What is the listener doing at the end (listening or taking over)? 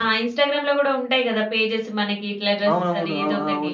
taking over